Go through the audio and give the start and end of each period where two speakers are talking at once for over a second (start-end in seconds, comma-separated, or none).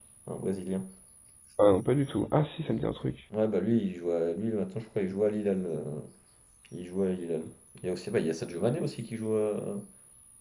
none